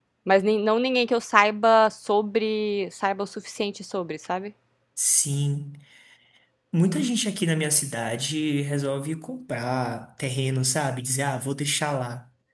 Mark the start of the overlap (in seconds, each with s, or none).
none